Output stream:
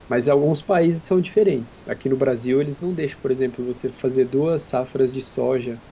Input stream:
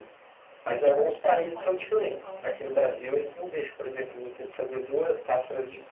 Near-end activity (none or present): present